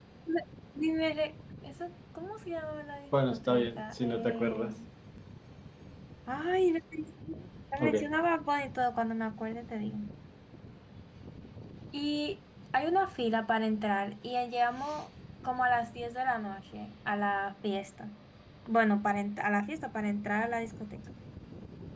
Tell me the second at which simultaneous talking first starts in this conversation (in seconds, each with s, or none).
3.3 s